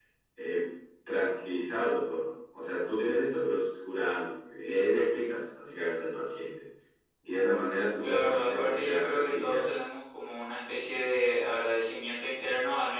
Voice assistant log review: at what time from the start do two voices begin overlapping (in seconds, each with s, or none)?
8.0 s